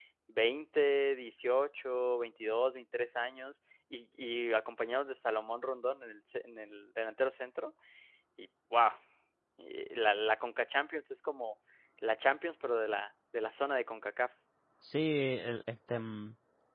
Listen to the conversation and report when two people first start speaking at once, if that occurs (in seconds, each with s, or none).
none